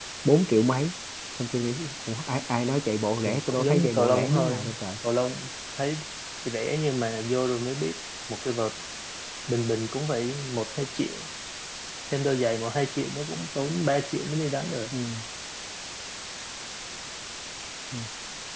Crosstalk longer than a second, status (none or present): present